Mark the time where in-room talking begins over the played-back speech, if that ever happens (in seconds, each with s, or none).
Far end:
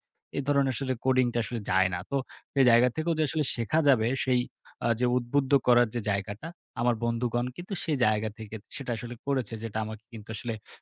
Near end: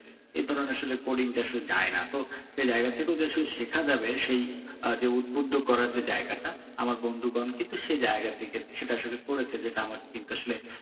none